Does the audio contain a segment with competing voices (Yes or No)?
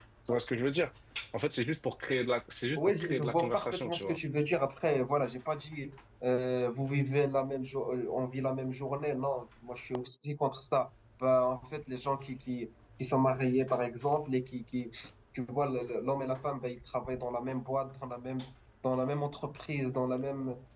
Yes